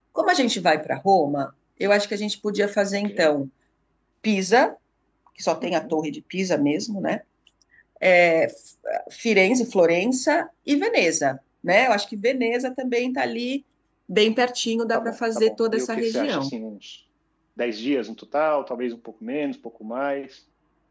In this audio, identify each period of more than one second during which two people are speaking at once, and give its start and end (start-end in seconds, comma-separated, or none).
14.9-16.5